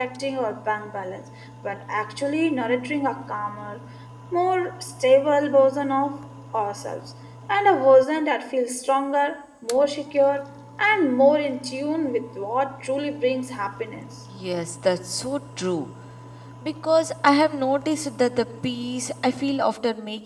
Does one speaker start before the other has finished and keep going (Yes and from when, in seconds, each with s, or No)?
No